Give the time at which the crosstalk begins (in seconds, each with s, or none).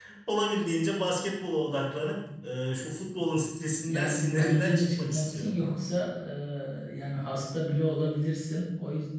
3.9 s